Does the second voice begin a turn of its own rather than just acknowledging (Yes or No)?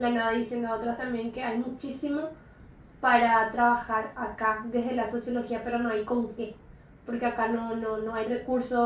No